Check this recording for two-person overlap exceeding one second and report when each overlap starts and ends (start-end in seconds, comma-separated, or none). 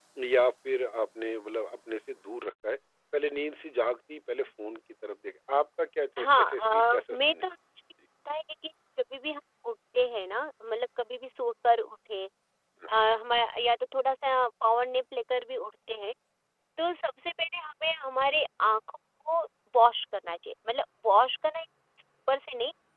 6.2-7.4